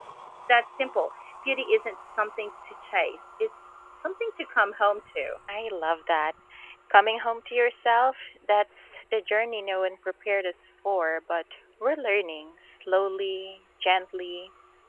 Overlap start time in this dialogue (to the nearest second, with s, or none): none